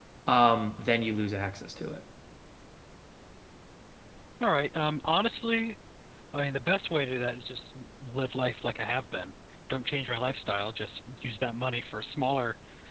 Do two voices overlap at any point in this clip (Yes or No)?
No